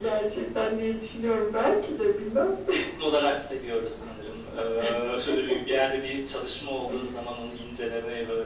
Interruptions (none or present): none